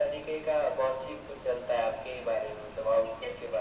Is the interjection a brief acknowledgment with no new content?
No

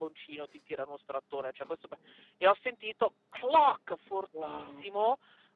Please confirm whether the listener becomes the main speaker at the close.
No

